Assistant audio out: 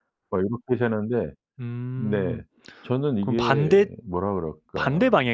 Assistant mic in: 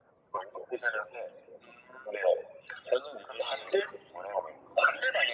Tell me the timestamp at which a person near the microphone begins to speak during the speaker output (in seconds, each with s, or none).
none